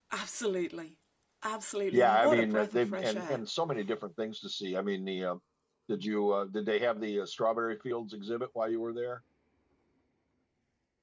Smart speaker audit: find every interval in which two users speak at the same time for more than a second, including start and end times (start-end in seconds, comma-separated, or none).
1.9-3.4